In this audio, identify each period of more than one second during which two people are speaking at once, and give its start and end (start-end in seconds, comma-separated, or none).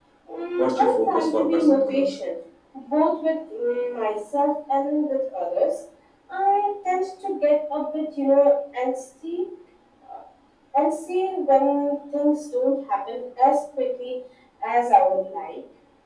0.6-2.0